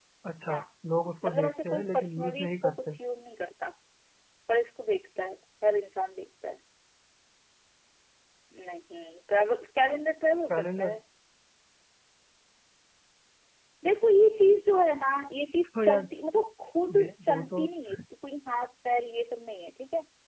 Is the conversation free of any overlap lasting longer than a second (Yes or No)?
No